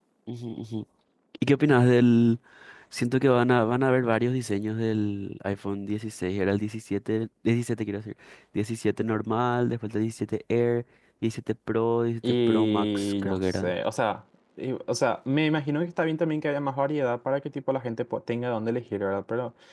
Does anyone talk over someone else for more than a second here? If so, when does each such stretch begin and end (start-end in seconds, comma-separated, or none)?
12.2-13.7